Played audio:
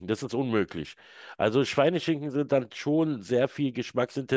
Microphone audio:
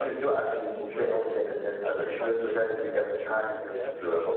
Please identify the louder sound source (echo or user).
user